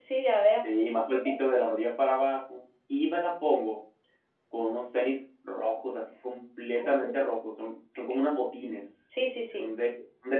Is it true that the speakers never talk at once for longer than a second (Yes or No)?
Yes